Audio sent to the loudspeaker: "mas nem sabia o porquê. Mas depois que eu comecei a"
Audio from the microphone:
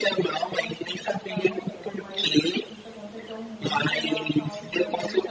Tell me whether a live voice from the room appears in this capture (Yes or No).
Yes